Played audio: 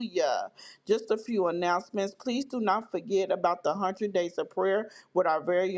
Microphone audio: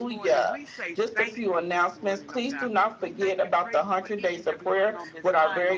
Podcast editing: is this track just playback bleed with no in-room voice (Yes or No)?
No